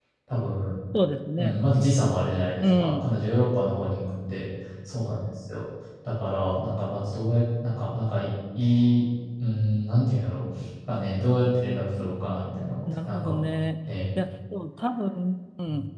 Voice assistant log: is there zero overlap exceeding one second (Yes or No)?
Yes